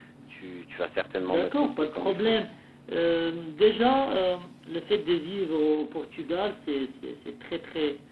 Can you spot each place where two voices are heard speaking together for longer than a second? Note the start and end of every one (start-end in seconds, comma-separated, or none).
1.2-2.4